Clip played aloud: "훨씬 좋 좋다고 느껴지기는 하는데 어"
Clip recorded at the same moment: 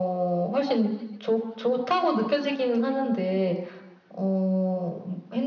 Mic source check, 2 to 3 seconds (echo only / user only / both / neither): echo only